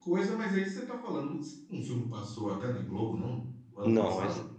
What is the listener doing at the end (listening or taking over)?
taking over